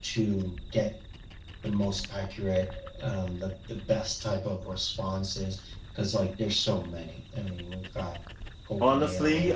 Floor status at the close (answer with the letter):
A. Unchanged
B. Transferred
B